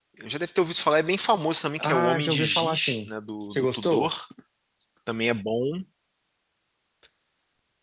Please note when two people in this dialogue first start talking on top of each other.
1.8 s

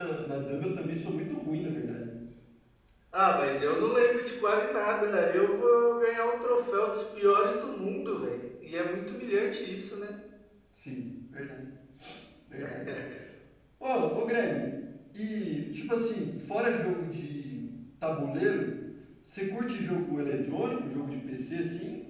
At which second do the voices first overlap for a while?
none

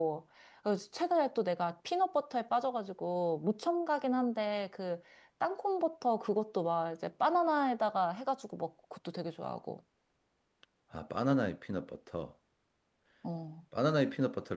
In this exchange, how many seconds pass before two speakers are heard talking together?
none

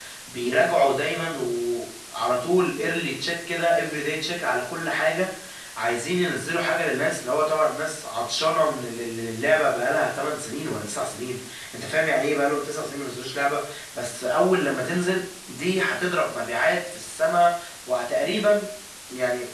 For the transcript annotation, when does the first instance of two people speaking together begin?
none

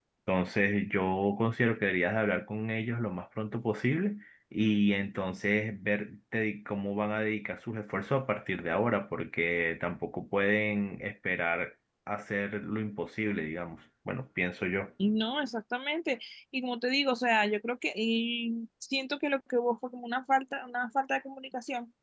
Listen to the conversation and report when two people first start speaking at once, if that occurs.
none

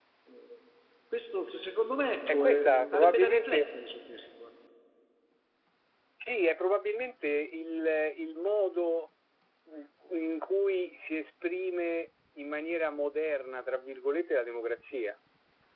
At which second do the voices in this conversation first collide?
2.3 s

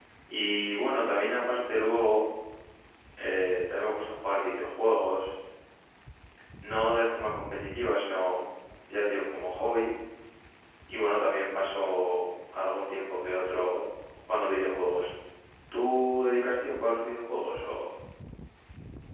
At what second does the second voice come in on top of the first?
none

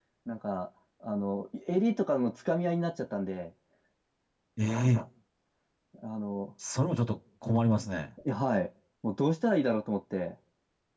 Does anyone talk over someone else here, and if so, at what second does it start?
none

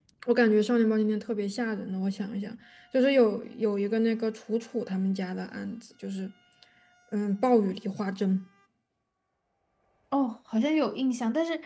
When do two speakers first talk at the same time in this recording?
none

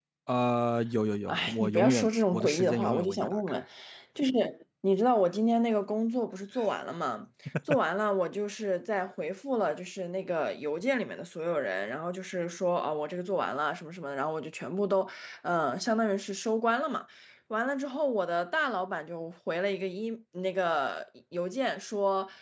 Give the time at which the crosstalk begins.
1.3 s

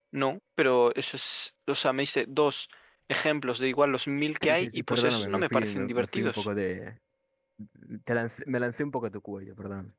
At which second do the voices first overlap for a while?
4.4 s

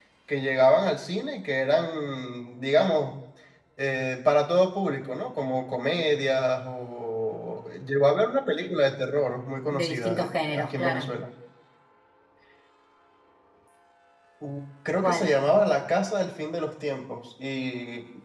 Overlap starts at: 9.7 s

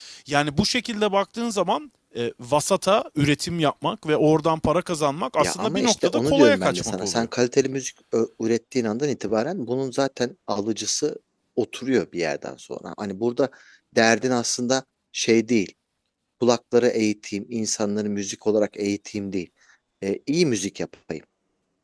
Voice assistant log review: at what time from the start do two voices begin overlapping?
5.4 s

